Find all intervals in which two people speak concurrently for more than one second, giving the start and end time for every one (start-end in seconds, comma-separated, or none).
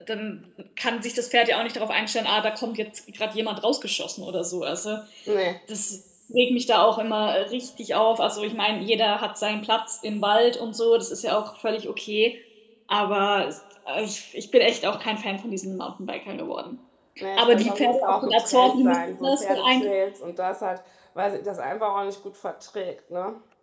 17.4-19.9